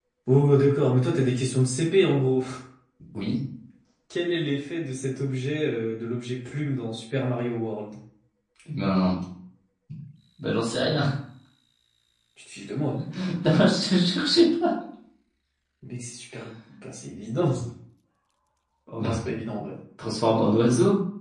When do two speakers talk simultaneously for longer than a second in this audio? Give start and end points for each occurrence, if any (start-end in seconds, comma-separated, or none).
none